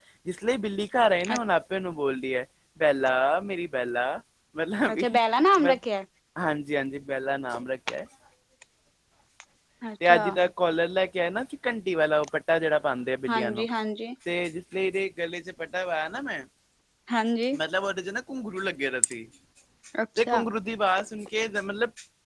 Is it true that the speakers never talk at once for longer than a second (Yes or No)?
Yes